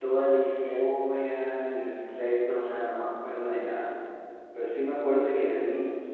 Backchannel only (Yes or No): Yes